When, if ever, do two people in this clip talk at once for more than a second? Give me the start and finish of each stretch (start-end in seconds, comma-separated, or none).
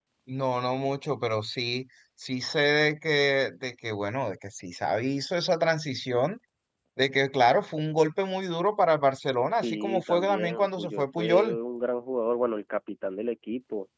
9.6-11.6